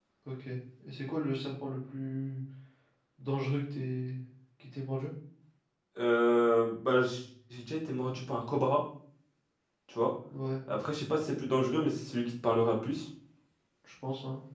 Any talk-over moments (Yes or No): No